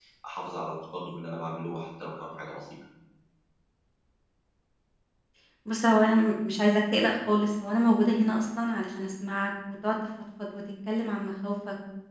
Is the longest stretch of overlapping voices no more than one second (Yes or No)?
Yes